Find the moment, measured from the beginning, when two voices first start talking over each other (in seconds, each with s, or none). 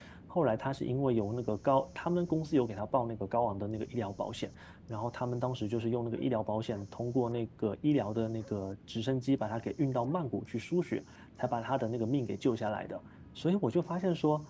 none